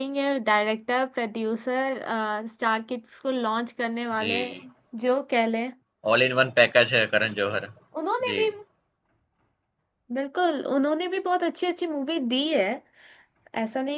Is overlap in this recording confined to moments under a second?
Yes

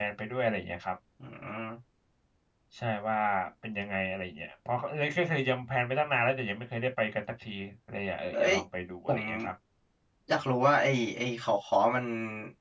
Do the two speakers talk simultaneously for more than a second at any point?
No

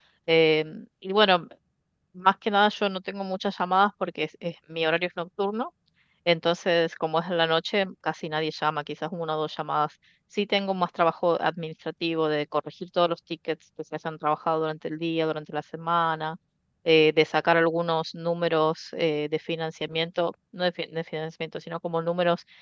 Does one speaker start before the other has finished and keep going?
No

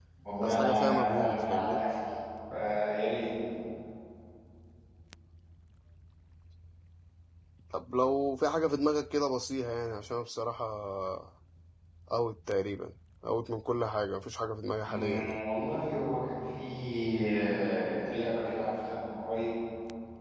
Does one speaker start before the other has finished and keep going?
Yes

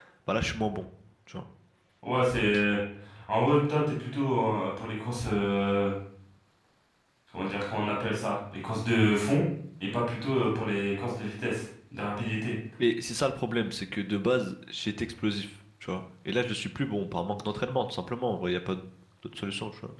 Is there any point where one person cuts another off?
No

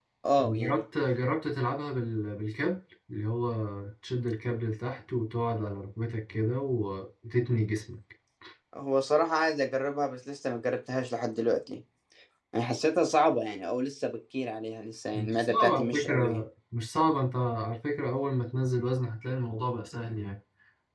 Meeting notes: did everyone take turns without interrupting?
No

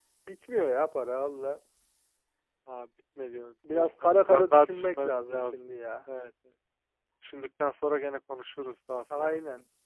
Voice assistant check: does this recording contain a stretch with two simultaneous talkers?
Yes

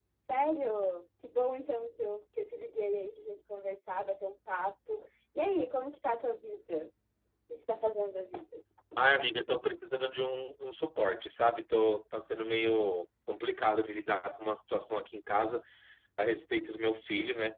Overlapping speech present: No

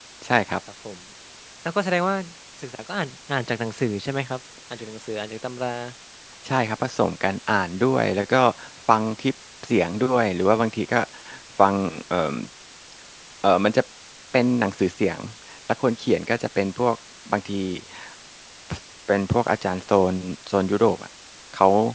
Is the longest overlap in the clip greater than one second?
No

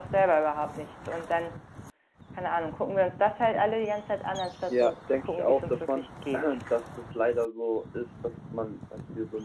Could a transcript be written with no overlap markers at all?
No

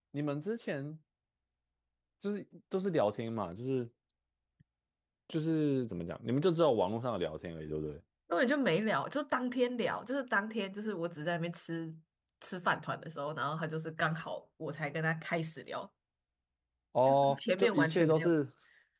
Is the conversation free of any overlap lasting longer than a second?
No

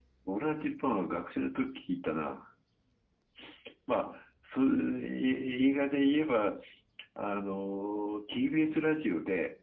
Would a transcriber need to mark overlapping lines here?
No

